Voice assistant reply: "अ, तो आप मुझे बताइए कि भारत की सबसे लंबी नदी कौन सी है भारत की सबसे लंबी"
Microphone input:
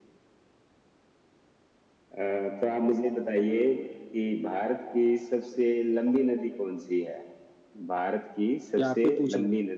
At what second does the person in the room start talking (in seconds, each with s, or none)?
8.8 s